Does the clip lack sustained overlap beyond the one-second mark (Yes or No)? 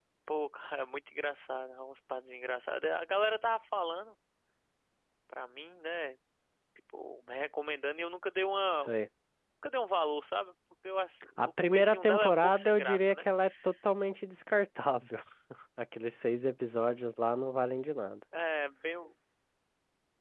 No